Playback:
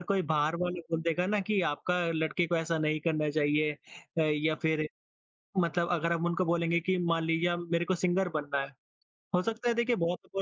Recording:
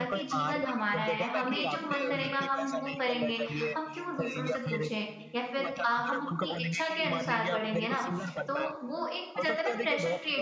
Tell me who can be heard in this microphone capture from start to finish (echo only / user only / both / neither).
both